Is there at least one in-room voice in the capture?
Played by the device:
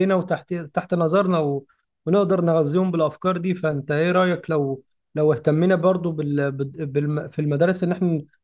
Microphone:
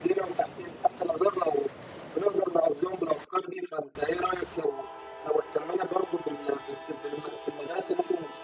No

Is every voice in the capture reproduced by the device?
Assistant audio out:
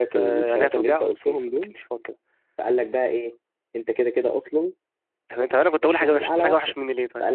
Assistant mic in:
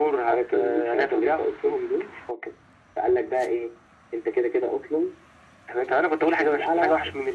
Yes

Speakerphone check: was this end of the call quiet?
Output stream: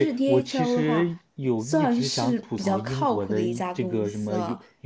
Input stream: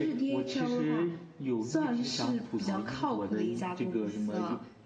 Yes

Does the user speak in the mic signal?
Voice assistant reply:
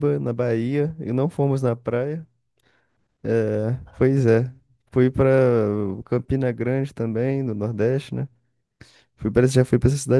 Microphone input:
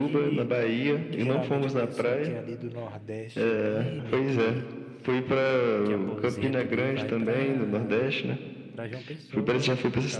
Yes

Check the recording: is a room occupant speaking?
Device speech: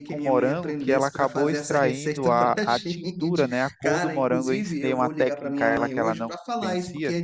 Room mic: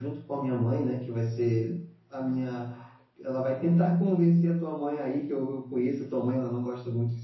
Yes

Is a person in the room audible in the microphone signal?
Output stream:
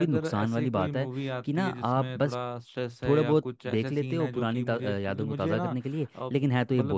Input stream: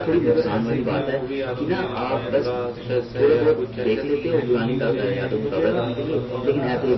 Yes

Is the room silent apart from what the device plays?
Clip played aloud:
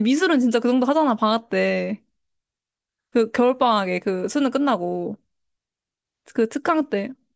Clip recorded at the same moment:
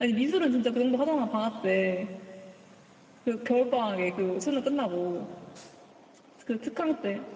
Yes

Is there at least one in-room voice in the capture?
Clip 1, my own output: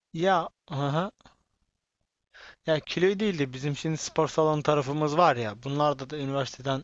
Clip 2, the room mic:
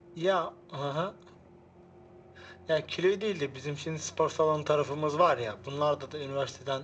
No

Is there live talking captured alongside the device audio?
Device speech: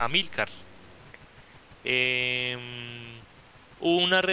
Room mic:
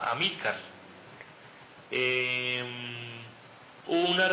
No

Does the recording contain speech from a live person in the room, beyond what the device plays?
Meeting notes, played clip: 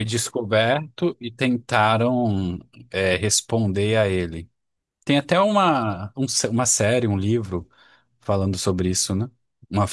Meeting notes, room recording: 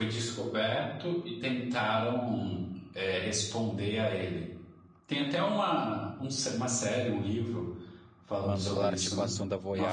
Yes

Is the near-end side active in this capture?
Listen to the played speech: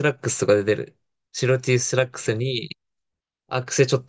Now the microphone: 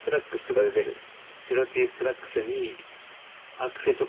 No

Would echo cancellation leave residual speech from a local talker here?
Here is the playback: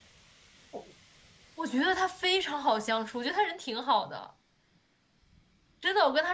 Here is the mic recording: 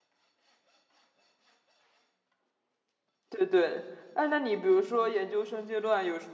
Yes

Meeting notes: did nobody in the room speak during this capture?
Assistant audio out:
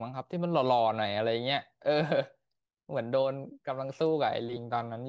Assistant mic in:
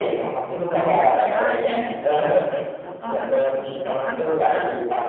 No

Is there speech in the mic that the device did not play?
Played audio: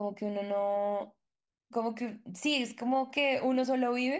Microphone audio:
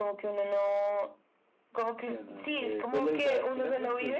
Yes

